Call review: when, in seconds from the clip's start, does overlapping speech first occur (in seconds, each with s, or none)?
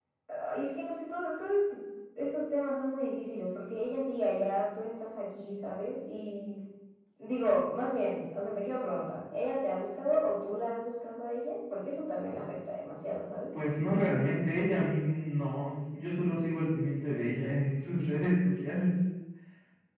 none